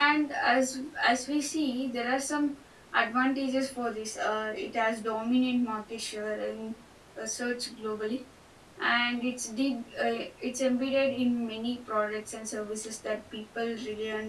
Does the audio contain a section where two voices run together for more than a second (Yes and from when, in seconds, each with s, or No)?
No